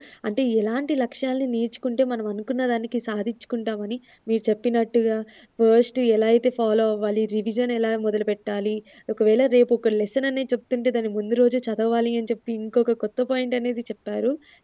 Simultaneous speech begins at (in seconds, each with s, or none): none